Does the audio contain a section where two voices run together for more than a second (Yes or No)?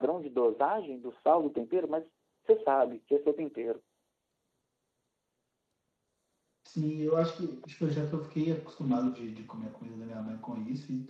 No